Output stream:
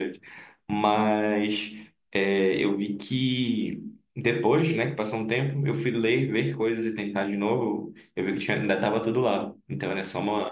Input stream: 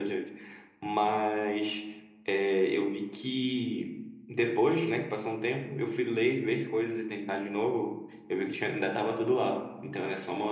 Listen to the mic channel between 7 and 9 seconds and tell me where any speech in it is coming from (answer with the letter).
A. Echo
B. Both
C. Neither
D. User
A